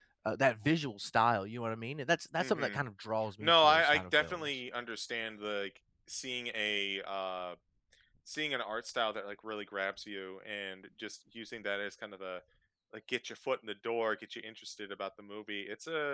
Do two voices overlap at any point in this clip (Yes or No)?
Yes